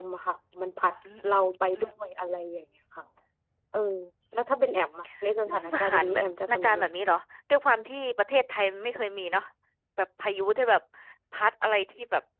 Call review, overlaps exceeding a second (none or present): present